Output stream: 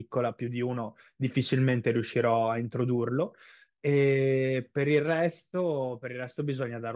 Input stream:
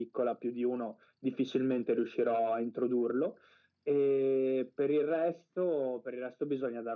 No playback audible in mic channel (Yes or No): No